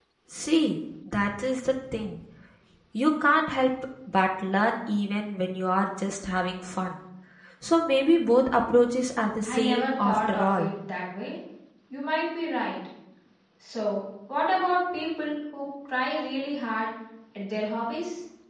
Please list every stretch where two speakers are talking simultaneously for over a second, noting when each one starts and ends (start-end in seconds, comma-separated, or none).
9.5-10.7